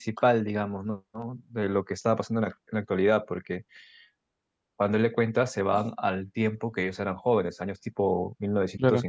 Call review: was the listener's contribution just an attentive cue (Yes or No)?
No